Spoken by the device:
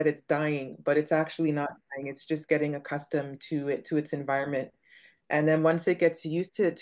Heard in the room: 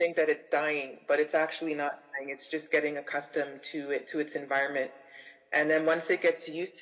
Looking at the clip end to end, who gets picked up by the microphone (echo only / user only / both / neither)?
echo only